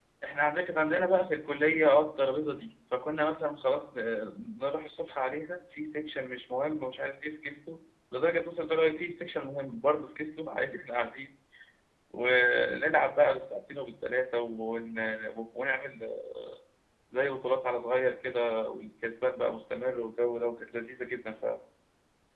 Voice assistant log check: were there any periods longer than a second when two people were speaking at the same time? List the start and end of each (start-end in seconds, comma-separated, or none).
none